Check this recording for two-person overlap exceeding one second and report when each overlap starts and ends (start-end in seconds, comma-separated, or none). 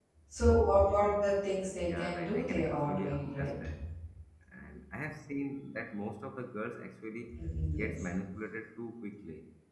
1.8-3.7